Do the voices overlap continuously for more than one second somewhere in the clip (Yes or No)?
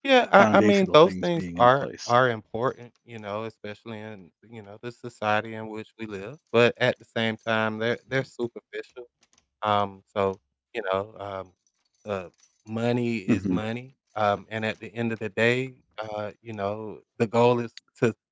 Yes